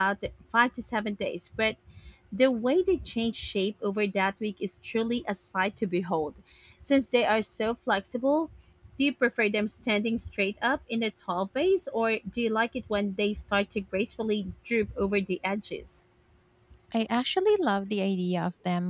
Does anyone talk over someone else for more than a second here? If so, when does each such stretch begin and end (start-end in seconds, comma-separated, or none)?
none